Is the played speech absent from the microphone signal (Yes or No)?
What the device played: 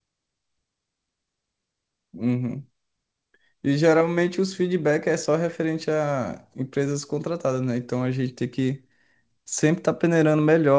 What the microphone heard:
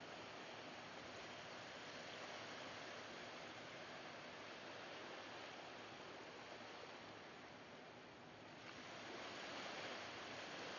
Yes